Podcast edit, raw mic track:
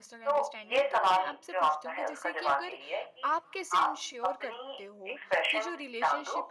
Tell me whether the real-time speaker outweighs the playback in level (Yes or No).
No